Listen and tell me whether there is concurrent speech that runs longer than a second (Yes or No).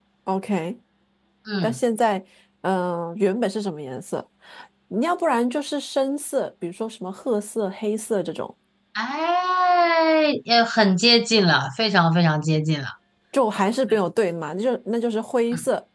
No